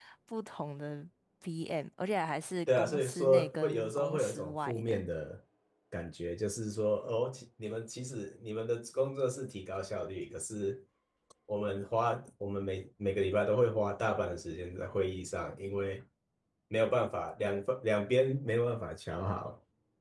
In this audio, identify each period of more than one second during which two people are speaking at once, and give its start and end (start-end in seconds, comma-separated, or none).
2.8-5.0